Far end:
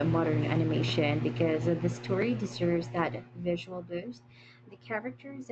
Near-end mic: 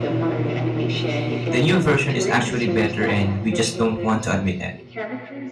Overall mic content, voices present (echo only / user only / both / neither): both